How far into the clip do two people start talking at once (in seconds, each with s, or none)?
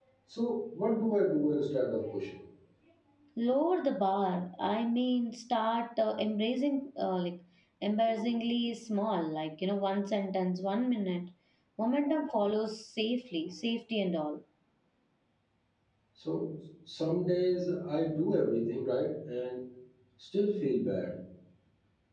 none